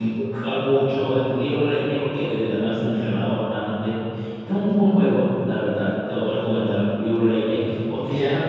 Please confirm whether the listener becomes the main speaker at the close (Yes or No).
No